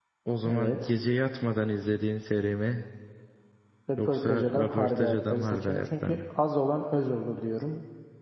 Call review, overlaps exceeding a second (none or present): present